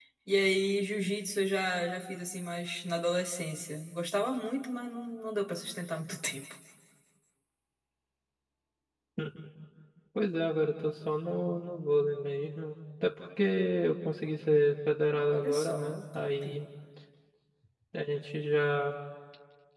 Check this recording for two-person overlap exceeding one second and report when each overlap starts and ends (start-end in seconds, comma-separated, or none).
15.1-16.4